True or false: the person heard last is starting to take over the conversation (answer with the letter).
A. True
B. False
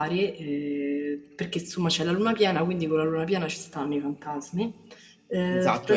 A